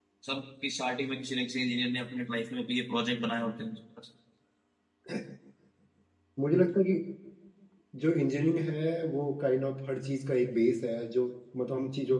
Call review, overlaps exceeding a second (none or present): none